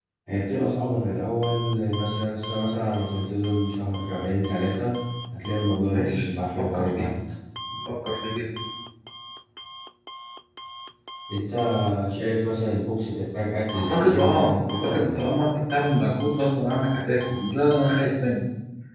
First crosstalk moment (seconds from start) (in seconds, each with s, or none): 5.9 s